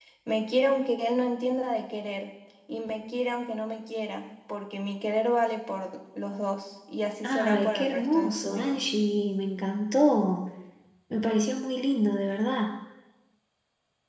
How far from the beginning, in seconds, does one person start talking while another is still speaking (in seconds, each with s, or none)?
7.2 s